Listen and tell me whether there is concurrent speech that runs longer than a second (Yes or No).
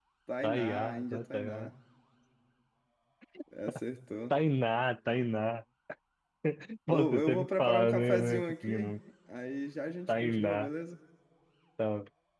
Yes